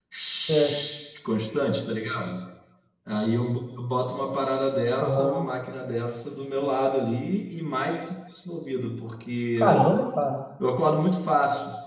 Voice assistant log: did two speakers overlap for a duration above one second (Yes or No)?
No